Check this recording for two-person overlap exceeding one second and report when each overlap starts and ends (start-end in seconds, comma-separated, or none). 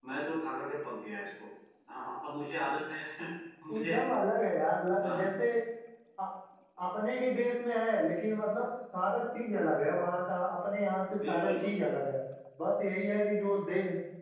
none